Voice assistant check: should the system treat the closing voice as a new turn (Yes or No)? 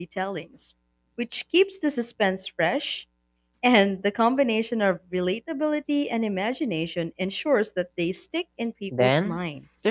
Yes